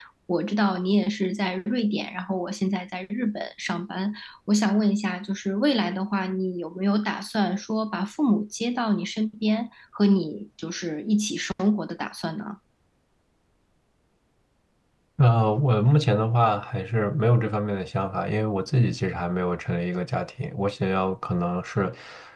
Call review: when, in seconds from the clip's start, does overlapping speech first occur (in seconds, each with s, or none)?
none